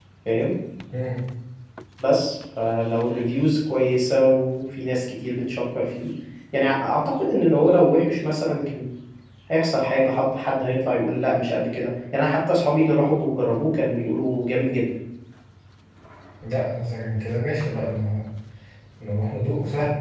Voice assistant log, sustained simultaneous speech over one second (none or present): none